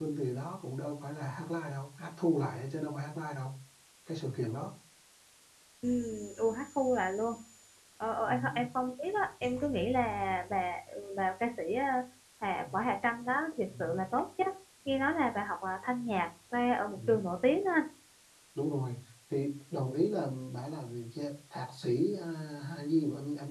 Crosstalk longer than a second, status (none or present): none